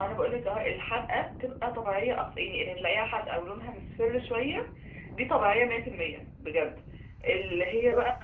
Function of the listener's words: listening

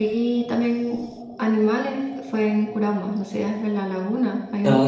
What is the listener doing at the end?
taking over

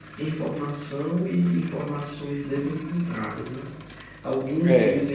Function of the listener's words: listening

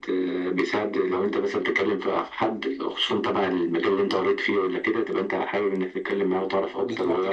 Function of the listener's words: taking over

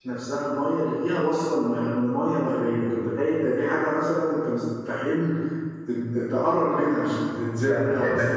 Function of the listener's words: taking over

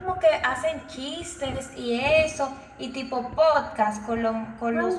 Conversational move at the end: taking over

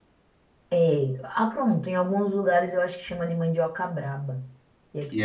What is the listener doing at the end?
taking over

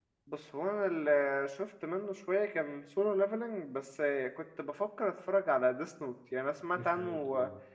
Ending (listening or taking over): listening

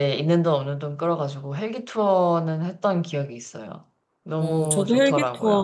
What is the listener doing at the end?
taking over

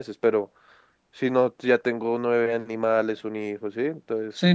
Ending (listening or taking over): taking over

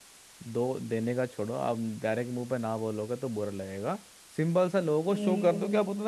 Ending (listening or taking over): listening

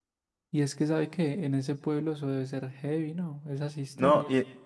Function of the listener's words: taking over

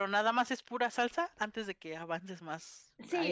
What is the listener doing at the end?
taking over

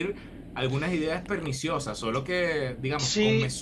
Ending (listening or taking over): taking over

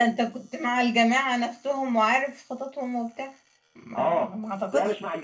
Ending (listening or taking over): taking over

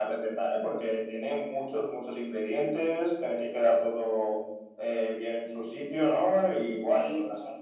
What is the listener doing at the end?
listening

